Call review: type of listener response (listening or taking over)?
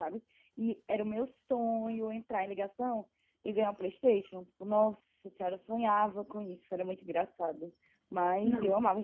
listening